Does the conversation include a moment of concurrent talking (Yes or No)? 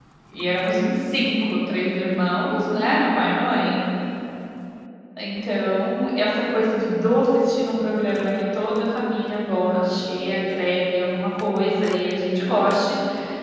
No